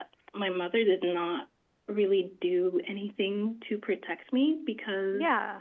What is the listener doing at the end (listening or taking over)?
listening